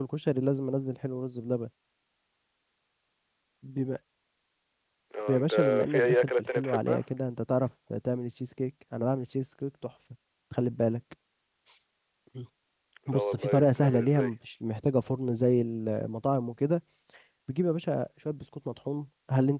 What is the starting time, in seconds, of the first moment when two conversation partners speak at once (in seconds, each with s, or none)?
5.3 s